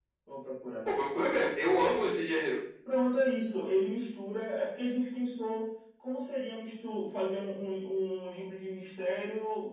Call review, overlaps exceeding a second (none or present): none